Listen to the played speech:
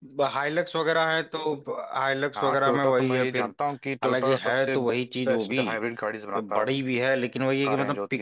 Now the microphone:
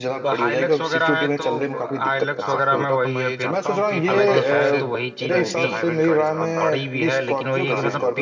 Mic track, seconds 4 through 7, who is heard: both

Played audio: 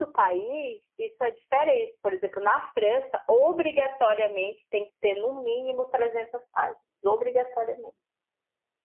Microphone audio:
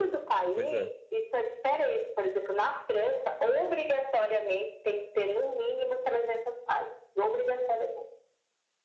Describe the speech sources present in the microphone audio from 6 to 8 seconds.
echo only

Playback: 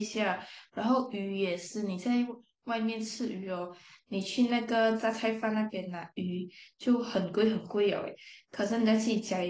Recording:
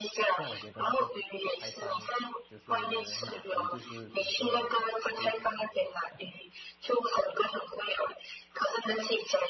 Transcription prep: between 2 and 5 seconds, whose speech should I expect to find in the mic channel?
both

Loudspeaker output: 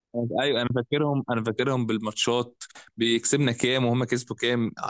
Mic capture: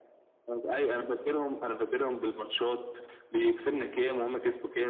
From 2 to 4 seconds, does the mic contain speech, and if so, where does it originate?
echo only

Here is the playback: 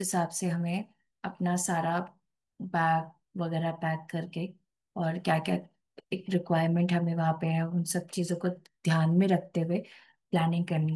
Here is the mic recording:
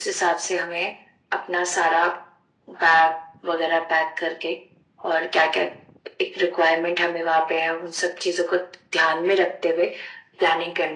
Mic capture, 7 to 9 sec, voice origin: echo only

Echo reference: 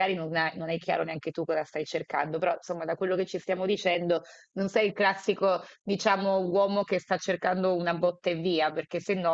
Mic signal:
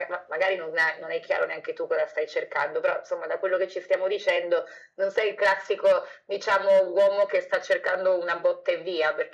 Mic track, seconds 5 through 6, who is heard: echo only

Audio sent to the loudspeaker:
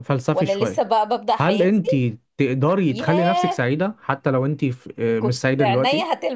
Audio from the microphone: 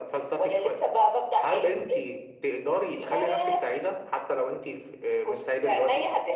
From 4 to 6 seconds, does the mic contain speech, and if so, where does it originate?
echo only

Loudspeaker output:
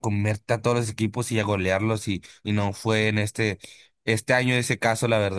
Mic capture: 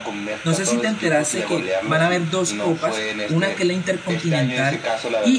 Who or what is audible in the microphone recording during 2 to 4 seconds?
both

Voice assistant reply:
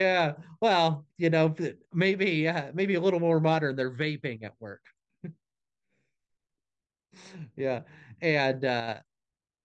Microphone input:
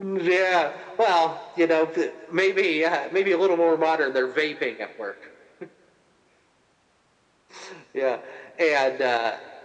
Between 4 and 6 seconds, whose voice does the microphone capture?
echo only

